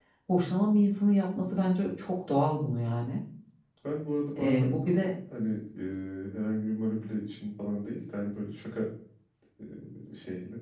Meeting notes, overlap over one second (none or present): none